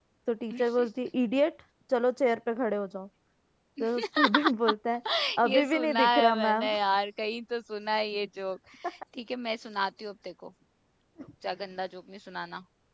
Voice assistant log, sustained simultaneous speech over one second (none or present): present